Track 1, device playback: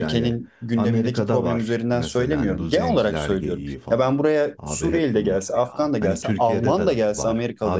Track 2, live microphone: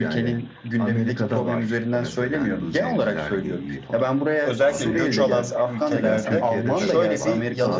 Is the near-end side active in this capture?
Yes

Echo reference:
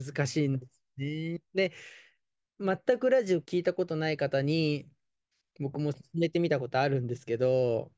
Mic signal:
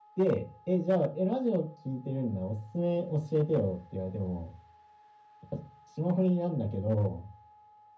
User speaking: Yes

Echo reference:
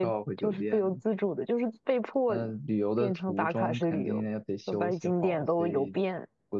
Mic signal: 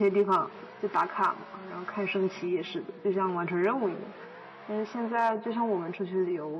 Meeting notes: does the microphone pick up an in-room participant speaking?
Yes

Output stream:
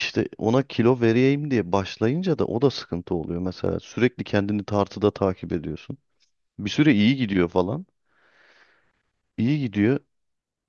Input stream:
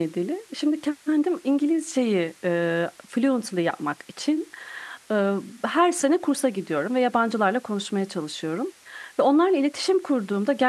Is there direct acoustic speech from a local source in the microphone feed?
Yes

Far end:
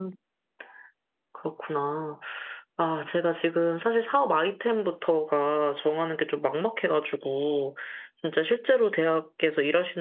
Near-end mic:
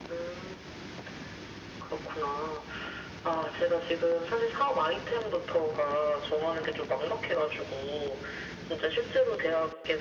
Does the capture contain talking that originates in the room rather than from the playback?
No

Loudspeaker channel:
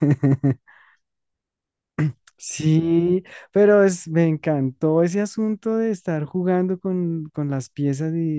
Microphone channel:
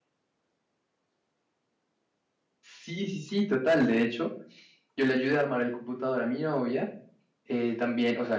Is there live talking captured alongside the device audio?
Yes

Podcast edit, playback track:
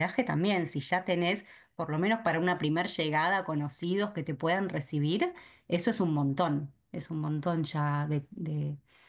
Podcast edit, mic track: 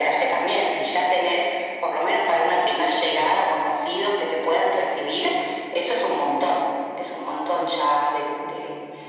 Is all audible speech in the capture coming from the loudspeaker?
Yes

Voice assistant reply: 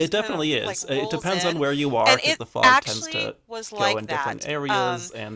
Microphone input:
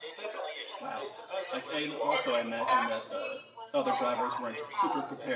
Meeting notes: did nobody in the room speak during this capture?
No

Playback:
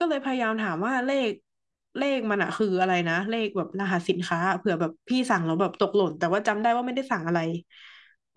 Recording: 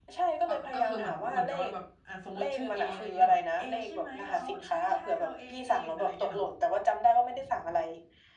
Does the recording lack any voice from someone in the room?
No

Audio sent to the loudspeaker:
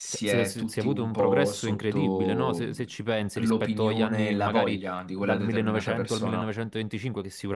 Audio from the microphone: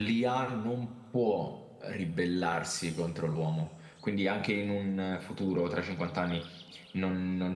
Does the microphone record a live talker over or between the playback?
Yes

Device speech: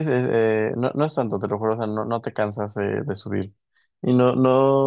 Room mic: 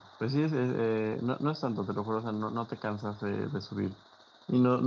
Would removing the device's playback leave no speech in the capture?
Yes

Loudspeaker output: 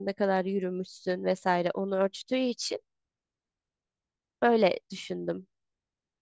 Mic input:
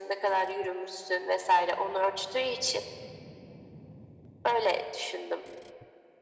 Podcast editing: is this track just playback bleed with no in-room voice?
Yes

